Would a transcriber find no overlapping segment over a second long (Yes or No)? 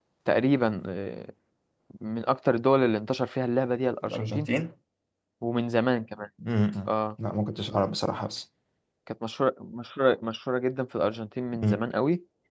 Yes